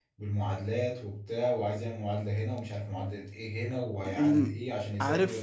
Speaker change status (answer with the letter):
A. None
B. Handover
B